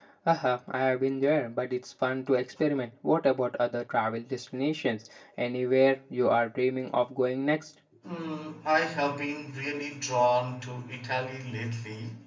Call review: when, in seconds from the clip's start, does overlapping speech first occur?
none

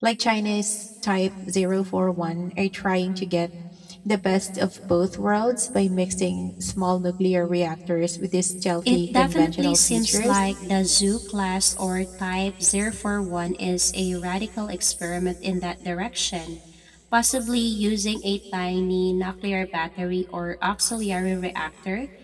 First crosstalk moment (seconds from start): 9 s

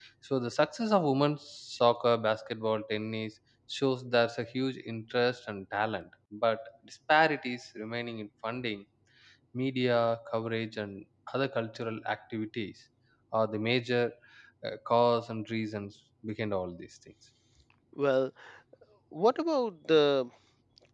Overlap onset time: none

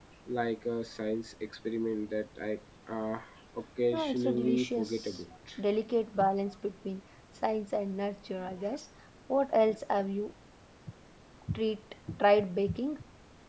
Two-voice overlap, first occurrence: 4 s

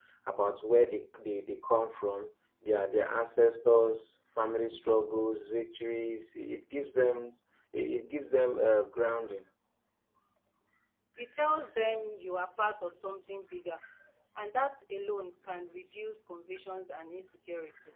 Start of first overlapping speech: none

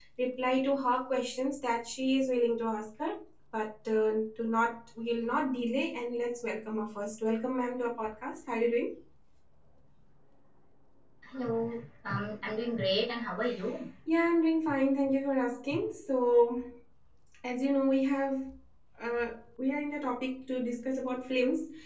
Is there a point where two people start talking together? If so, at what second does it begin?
none

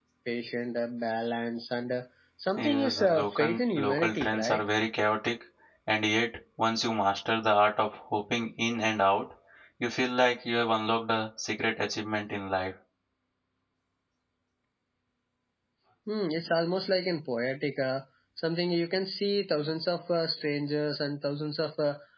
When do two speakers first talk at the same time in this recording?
3 s

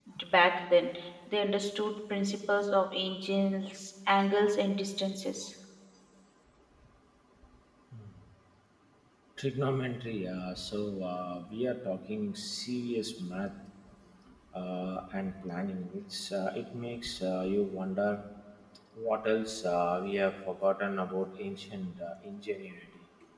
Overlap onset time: none

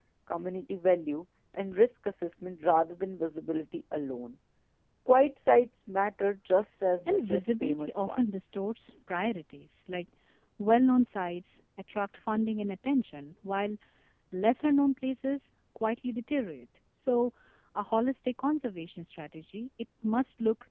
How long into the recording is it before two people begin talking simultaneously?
7 s

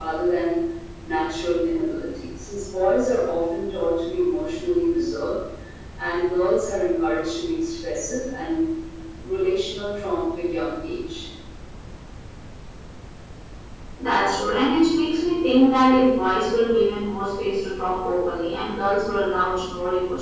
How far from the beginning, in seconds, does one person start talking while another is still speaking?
none

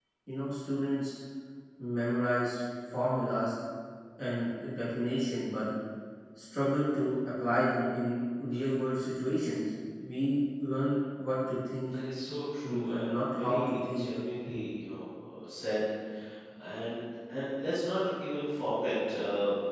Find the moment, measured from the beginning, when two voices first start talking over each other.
13 s

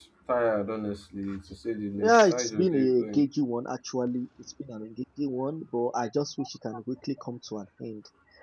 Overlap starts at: 2 s

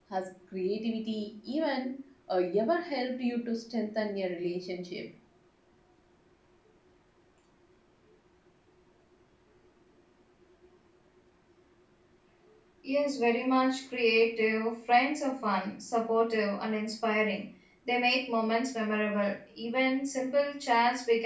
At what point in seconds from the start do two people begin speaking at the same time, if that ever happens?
none

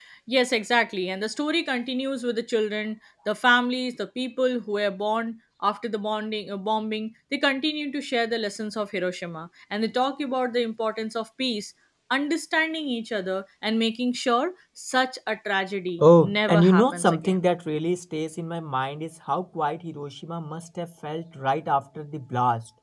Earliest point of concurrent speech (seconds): 16 s

